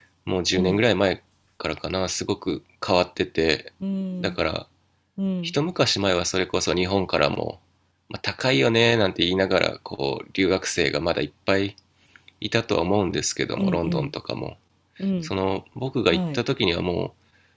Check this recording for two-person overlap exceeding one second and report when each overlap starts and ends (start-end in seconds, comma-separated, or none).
none